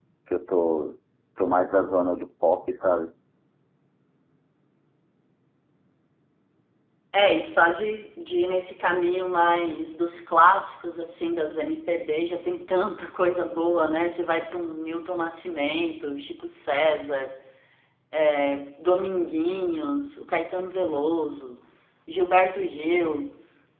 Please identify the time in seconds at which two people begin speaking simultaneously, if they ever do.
none

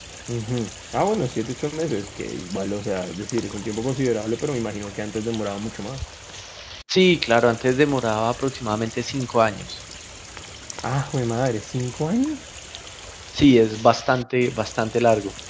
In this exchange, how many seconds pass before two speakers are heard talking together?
none

